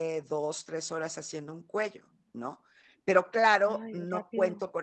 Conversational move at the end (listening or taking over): listening